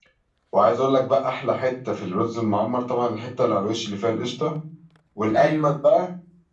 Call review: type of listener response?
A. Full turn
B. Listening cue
B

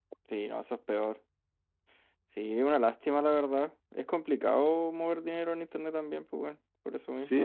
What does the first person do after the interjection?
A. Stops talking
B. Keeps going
A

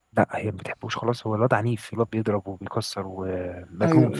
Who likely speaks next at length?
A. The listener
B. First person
A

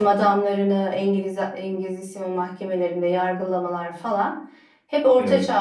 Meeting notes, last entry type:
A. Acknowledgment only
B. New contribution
A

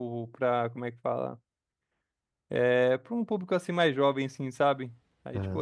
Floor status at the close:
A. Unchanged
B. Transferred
A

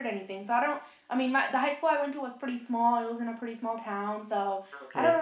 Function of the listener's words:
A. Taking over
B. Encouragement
B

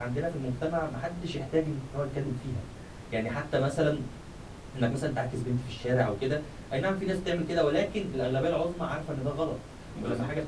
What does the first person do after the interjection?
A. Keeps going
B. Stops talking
A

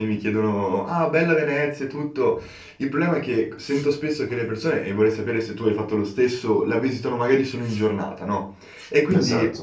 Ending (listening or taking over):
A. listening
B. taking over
A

